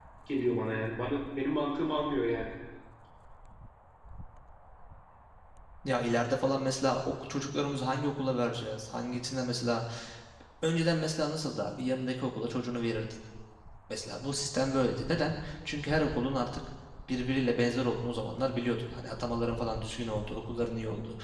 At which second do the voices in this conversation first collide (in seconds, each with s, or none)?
none